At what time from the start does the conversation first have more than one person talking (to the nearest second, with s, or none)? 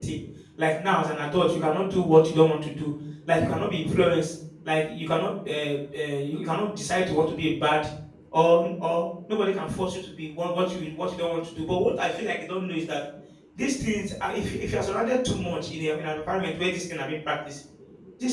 none